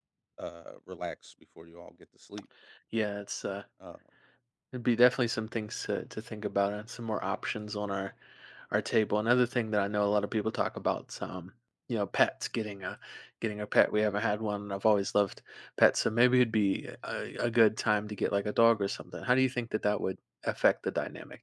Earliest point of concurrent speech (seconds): none

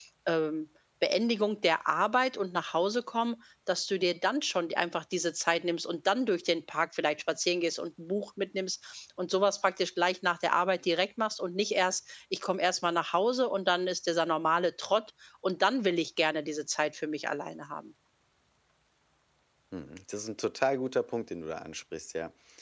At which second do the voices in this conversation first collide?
none

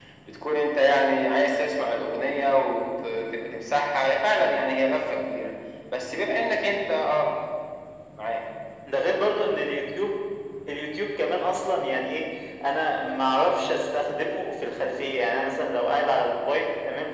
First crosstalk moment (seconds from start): none

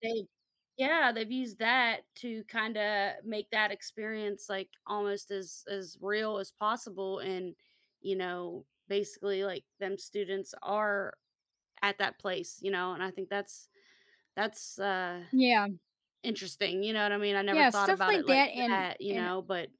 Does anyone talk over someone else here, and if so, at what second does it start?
17.5 s

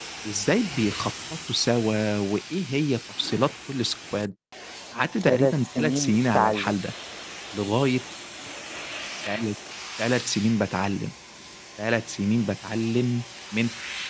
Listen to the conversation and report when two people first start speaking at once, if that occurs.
5.2 s

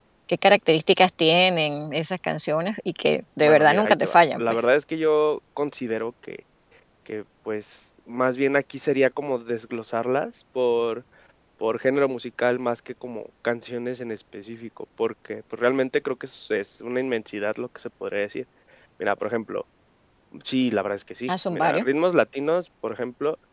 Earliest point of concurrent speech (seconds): 3.4 s

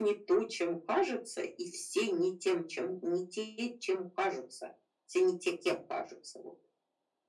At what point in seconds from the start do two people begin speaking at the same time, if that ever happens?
none

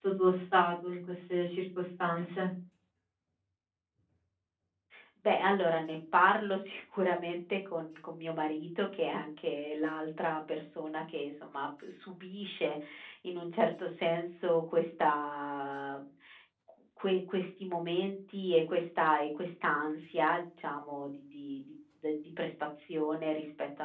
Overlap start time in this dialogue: none

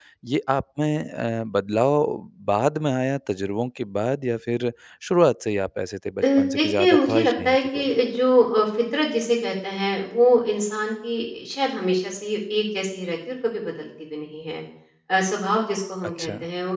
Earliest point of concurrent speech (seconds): 6.4 s

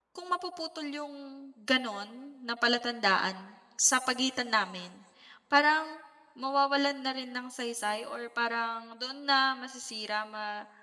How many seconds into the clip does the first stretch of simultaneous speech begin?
none

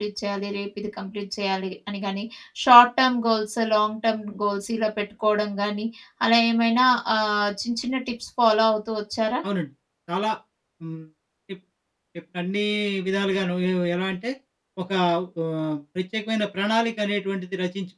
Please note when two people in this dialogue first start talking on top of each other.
none

